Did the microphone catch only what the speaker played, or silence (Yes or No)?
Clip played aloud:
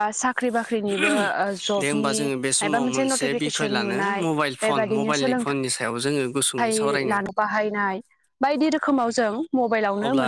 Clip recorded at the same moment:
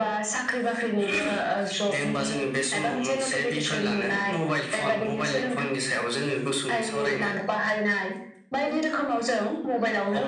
Yes